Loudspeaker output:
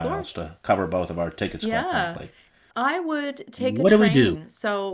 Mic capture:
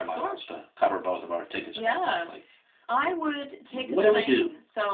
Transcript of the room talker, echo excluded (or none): none